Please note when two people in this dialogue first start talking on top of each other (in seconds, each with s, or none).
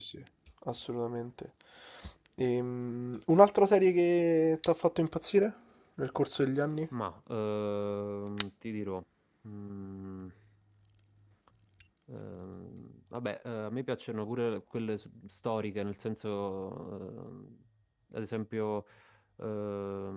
none